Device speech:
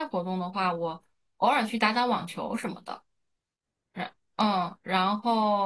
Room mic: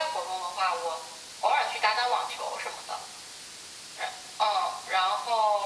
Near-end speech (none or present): none